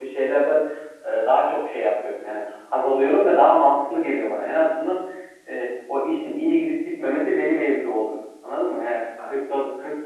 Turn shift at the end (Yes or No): No